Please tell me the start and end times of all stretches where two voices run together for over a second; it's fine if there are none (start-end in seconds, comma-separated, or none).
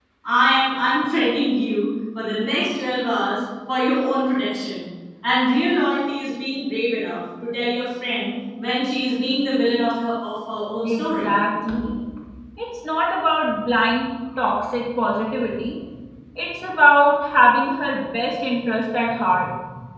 none